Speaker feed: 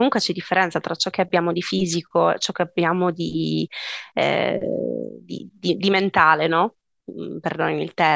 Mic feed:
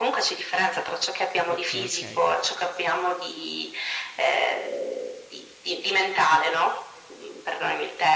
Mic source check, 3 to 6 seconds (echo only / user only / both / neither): echo only